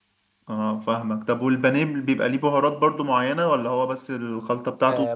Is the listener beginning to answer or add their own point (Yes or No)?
Yes